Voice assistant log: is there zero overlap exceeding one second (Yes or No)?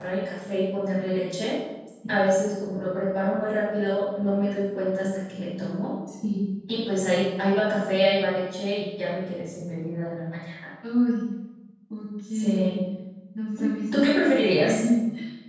Yes